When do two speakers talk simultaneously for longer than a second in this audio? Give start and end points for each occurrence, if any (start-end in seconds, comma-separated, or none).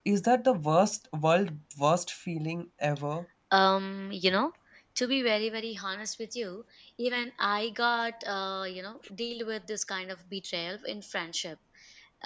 none